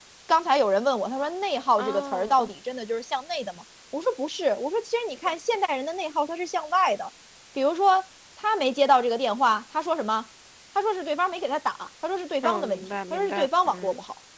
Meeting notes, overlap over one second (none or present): present